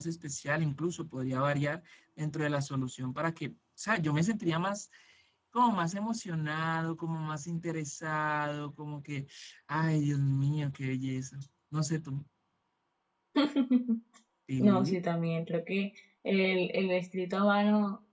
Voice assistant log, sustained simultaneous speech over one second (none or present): none